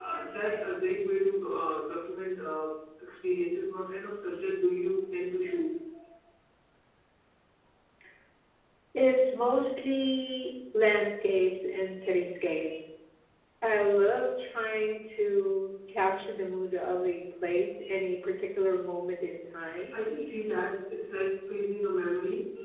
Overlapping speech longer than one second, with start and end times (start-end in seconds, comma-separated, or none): none